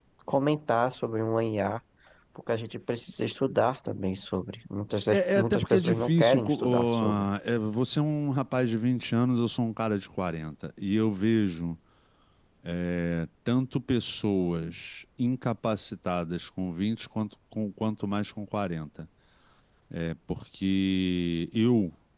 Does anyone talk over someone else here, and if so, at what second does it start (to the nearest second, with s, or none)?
5 s